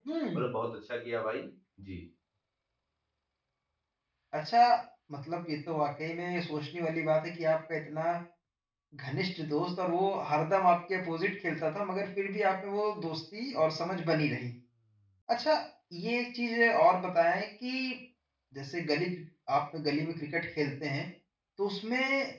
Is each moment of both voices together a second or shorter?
Yes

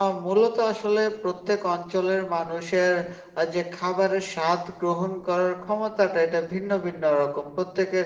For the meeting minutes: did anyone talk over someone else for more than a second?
No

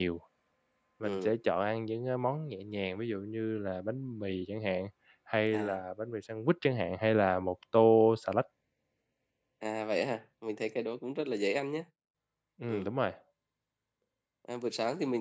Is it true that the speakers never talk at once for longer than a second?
Yes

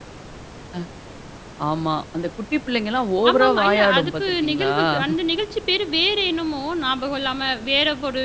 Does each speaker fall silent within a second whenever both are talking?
No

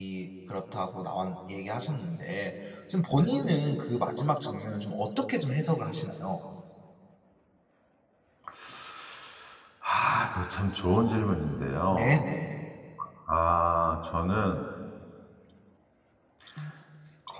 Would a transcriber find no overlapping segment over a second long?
Yes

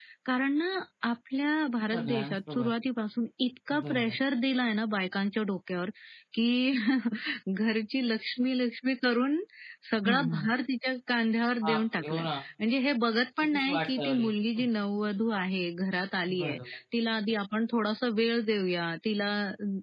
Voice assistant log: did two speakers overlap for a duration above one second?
Yes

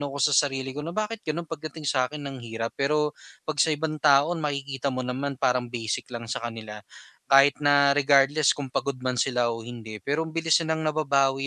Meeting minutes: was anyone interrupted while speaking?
No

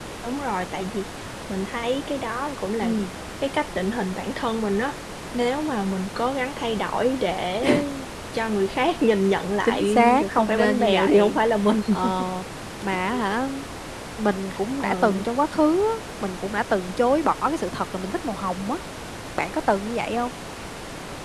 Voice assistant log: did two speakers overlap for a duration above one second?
Yes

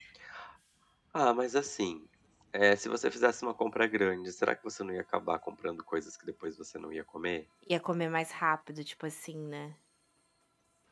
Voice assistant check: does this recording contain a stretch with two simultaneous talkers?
No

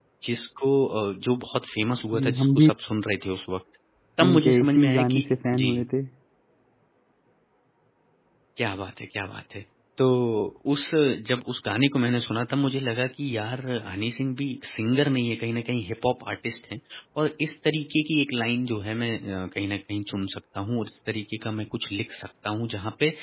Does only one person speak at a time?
No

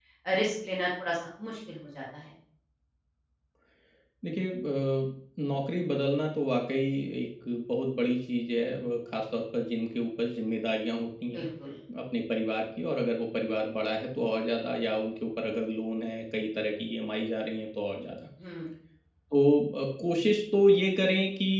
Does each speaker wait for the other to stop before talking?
Yes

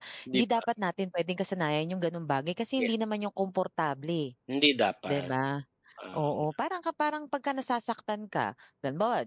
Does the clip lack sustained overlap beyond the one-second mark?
Yes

